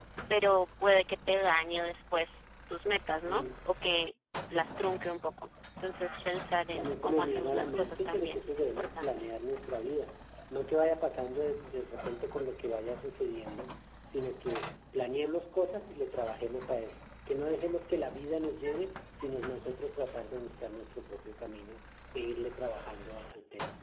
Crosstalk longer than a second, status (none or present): present